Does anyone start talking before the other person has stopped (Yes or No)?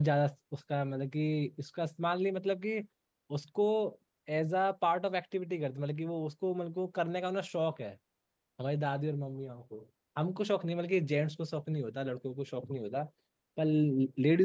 No